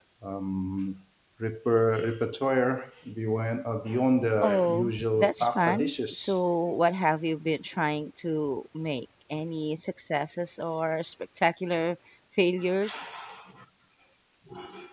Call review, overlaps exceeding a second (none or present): present